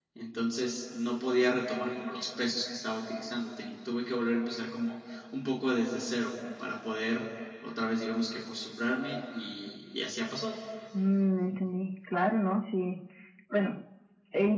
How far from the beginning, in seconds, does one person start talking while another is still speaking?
none

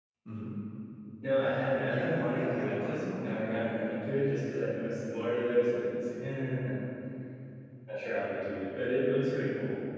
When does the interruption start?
1.9 s

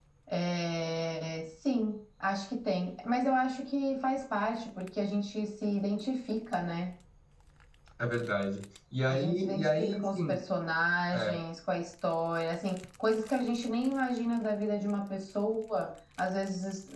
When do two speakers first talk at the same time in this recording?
9.1 s

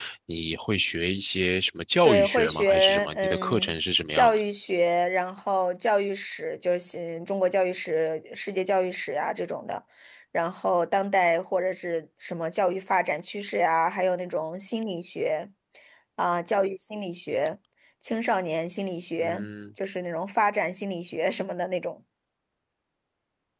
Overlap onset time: 2.0 s

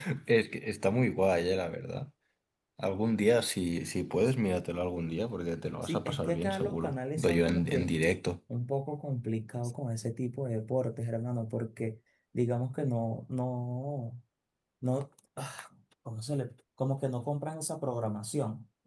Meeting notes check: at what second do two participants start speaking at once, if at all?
5.8 s

